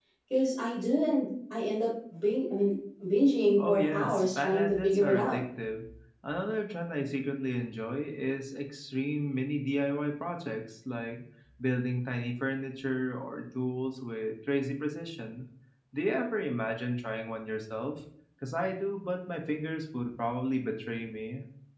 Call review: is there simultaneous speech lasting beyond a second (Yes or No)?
Yes